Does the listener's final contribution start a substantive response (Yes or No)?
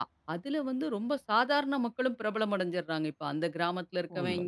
No